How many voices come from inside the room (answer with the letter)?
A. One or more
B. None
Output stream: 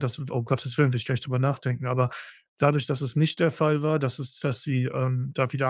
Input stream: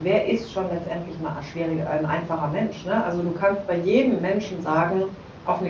A